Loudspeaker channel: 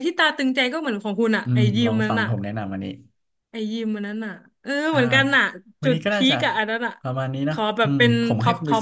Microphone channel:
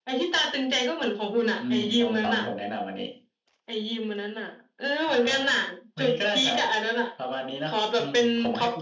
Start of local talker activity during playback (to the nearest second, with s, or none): none